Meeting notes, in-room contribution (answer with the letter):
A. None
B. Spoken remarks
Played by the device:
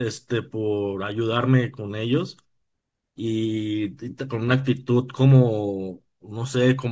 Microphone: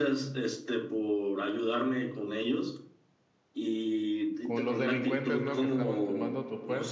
B